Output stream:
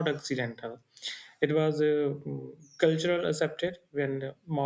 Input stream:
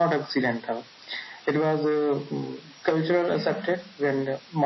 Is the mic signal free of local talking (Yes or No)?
No